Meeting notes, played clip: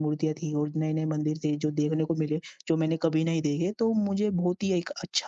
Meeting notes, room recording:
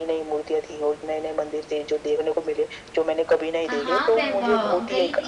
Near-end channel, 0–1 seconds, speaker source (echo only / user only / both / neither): echo only